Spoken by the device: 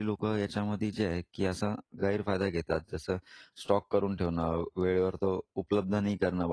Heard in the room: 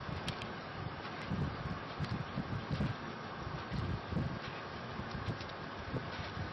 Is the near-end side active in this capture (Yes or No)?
No